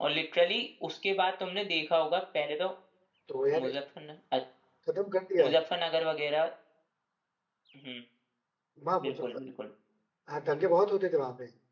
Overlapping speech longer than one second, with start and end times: none

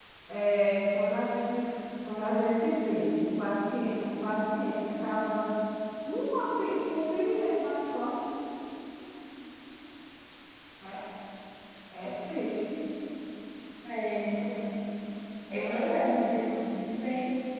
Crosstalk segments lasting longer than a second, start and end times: 15.5-16.8

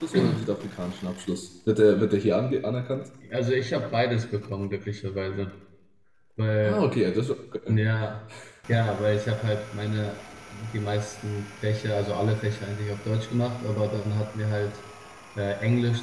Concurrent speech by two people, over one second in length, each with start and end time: none

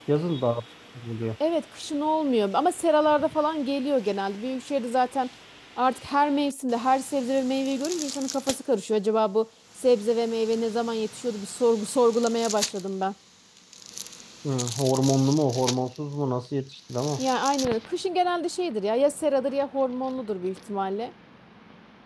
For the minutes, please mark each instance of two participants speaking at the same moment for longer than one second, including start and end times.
none

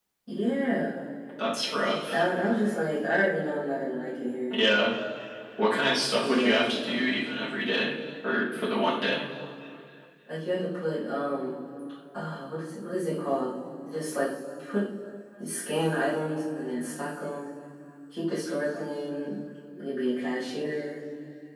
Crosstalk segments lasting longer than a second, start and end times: none

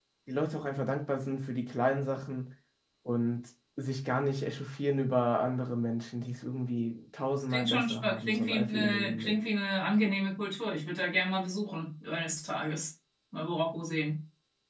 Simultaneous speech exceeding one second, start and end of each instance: 7.5-9.4

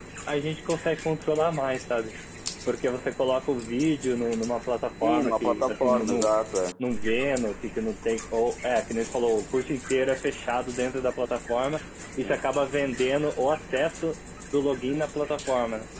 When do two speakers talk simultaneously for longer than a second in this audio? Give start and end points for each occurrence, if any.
5.0-6.3

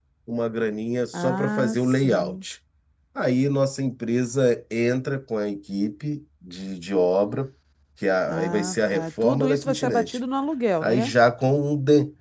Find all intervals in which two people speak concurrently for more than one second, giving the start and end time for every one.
1.1-2.4, 8.3-10.2

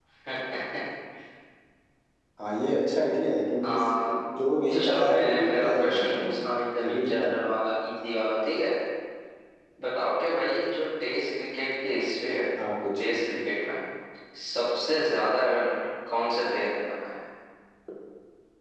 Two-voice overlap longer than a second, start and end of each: 4.7-6.3

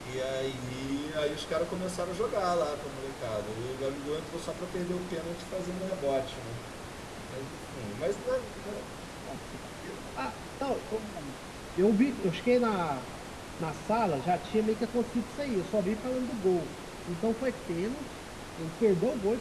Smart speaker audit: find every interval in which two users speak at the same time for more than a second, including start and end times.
none

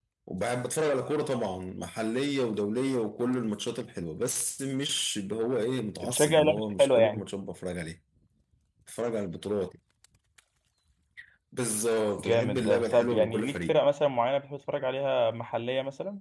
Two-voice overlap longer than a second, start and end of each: 6.0-7.2, 12.2-13.8

